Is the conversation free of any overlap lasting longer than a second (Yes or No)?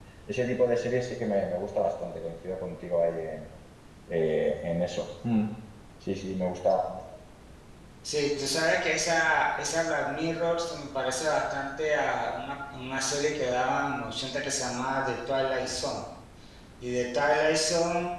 Yes